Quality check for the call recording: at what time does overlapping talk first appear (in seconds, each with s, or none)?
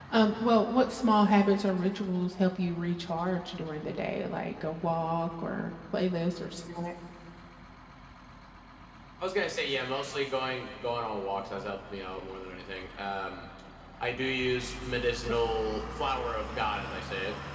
none